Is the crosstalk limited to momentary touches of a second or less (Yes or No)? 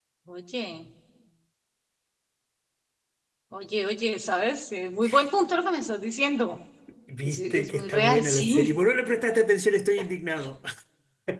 No